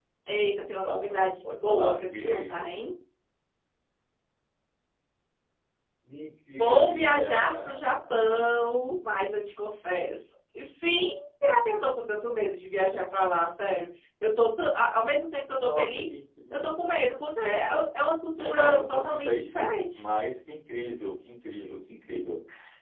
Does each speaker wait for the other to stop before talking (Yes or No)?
No